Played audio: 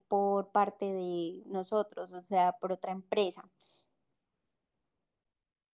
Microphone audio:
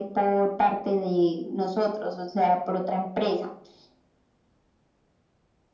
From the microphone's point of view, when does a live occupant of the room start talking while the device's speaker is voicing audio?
none

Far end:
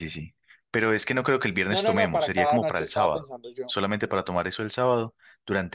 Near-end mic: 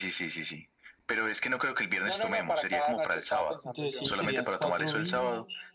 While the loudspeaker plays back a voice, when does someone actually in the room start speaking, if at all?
3.6 s

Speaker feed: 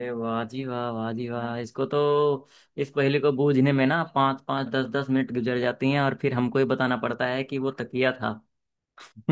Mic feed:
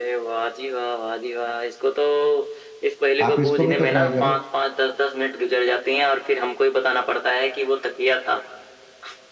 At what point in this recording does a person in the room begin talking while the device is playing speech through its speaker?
3.3 s

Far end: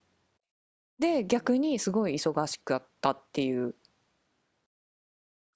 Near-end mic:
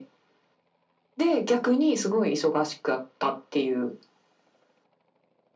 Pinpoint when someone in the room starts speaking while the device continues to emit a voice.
none

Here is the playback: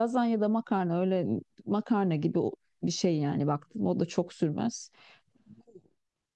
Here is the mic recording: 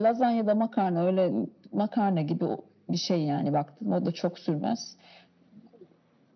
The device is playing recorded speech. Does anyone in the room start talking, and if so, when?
none

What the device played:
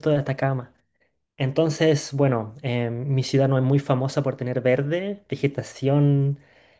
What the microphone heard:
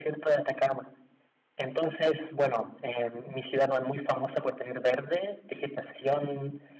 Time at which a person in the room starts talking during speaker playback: none

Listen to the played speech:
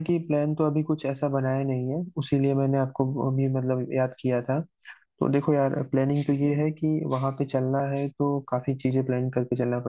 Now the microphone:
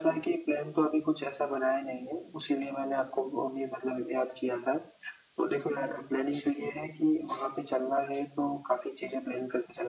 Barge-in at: none

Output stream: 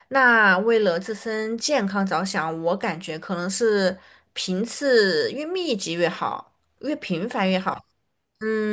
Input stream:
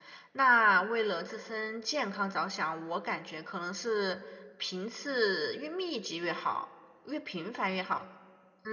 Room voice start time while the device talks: none

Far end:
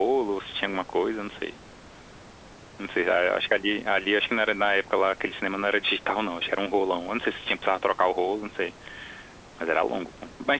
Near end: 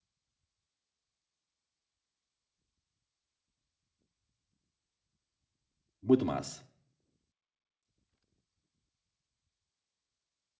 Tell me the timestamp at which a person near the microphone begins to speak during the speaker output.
6.0 s

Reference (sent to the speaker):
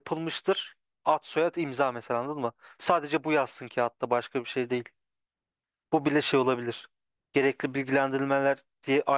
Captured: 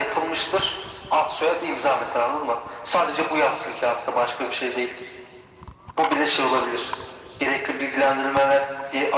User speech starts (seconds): none

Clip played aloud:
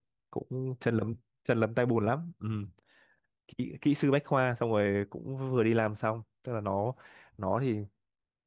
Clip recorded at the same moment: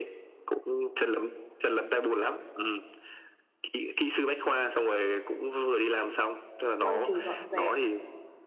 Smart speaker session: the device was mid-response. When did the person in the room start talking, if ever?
6.8 s

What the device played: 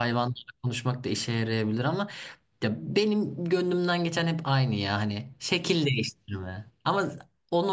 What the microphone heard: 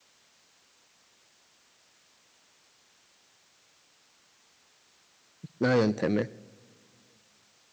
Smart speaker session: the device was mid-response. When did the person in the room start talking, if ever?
5.4 s

